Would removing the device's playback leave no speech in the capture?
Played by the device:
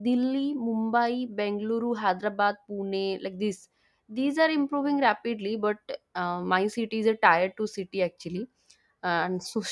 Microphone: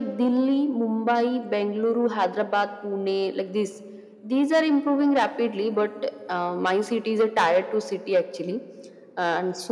Yes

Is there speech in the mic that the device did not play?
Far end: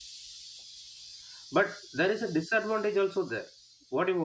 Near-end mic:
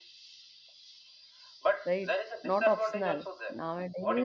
Yes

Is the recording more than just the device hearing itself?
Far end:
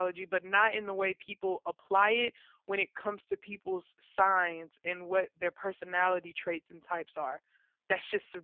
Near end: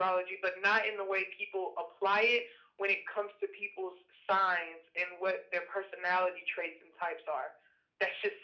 No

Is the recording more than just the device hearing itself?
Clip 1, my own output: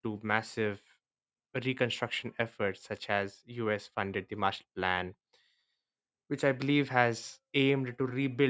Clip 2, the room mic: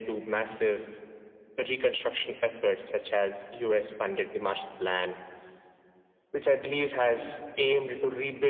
No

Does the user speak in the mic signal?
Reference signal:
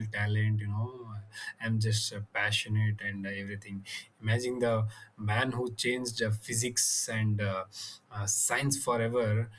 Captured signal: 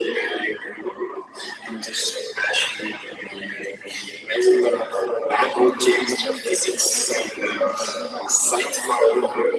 Yes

